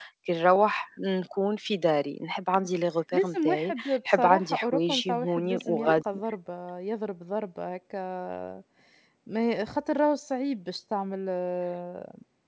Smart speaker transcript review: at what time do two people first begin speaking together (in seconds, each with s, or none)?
3.1 s